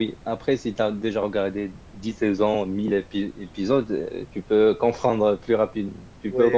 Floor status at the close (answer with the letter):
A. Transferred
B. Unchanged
A